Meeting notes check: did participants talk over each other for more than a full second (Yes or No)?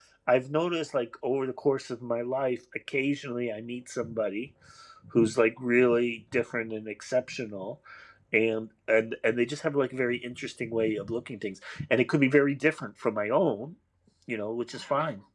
No